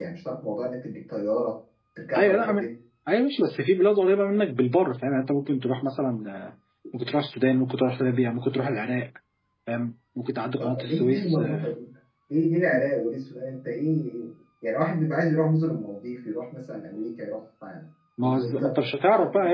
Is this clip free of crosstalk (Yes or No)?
No